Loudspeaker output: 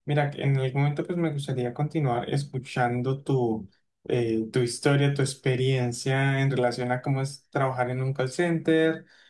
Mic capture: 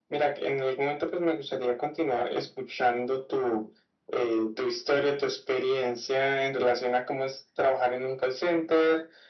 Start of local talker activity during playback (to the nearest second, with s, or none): none